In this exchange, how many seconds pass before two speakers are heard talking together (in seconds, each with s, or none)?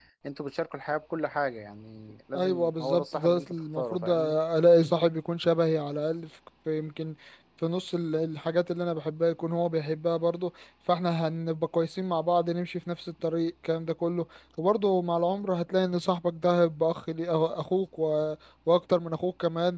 2.3 s